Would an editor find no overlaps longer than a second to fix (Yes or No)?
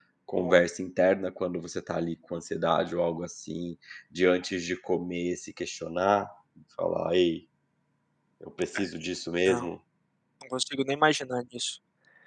Yes